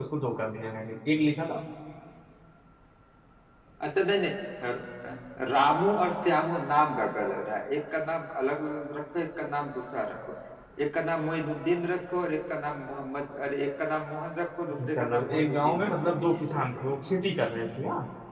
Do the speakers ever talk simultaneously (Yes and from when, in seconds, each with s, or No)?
Yes, from 14.7 s